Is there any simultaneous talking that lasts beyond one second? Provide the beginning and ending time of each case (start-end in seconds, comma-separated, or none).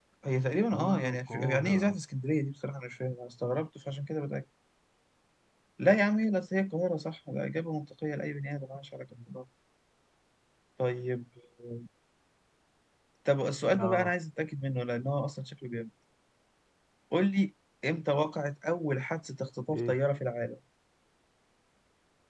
0.7-2.0